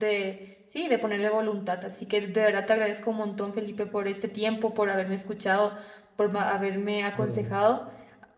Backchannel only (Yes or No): Yes